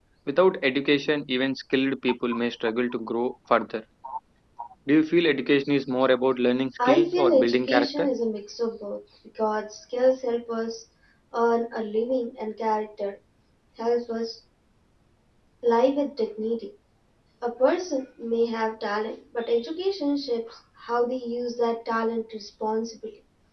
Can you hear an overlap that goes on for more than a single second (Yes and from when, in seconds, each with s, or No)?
Yes, from 6.8 s